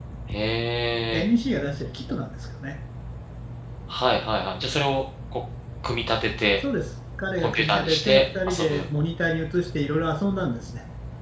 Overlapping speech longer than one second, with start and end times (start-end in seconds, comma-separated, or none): 7.4-8.9